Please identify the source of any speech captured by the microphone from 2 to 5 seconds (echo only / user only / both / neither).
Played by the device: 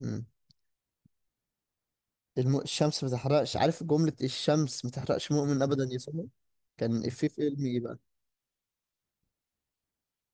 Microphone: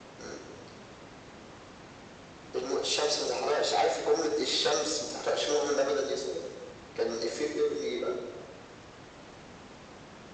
echo only